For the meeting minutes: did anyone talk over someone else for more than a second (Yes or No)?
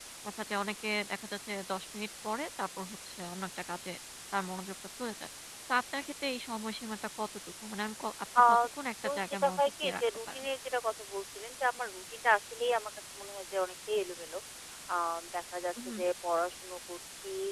Yes